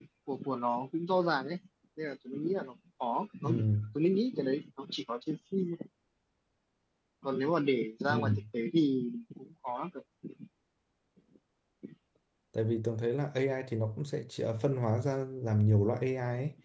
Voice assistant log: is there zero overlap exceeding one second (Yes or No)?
Yes